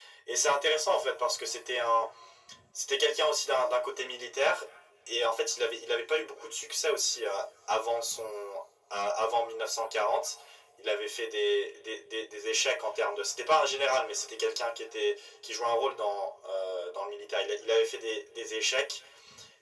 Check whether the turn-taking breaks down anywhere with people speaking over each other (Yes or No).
No